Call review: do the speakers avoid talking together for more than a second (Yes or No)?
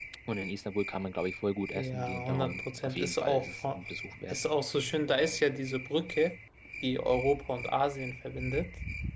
No